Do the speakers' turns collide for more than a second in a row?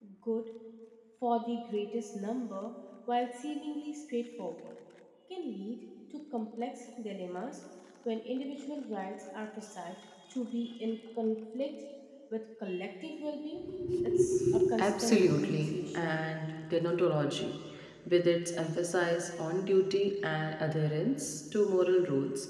Yes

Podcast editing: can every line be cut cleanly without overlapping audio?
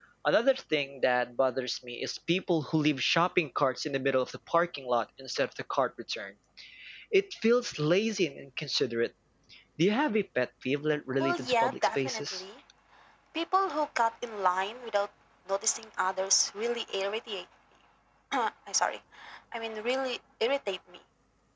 No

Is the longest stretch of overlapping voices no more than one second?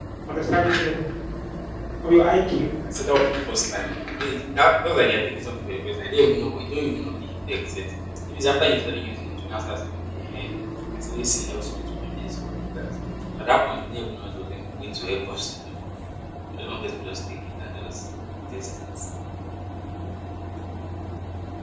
Yes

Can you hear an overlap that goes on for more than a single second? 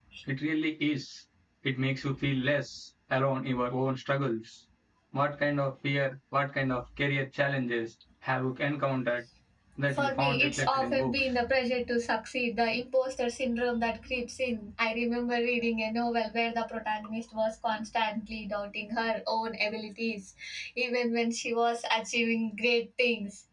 Yes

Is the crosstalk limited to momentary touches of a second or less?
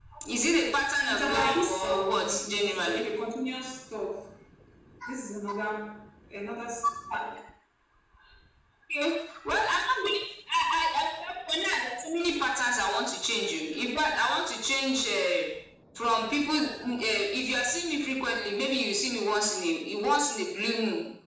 No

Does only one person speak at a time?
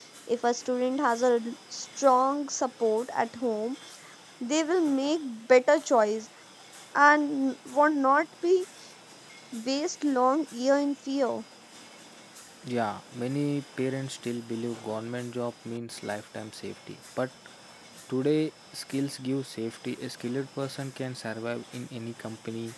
Yes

